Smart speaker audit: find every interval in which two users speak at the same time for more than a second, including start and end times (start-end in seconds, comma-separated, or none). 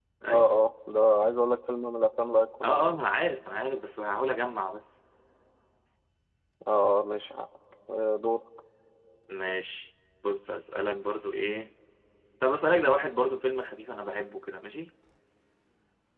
none